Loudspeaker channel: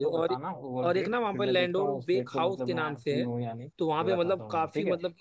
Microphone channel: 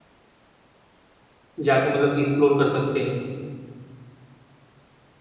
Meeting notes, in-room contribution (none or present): present